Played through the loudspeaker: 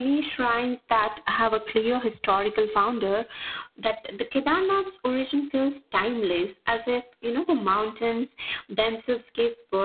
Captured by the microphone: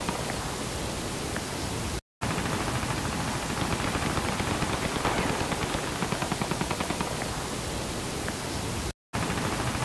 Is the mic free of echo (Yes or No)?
Yes